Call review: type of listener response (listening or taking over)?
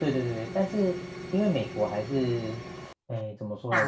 listening